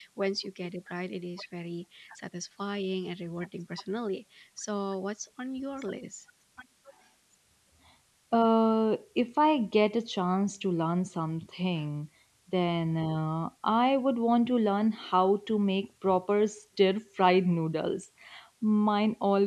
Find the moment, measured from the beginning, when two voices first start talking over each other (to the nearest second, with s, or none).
none